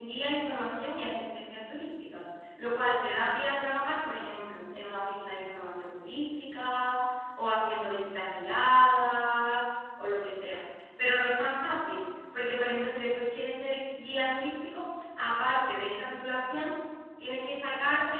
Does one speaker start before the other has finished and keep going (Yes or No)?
No